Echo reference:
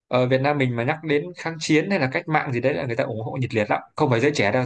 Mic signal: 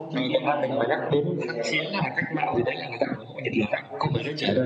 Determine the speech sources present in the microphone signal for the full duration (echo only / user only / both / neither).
both